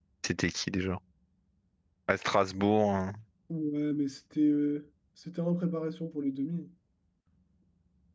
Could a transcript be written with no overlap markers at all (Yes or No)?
Yes